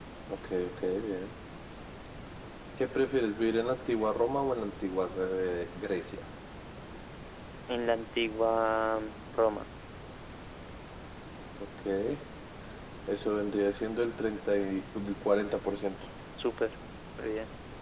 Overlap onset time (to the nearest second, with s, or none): none